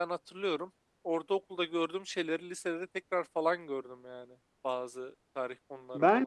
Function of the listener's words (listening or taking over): taking over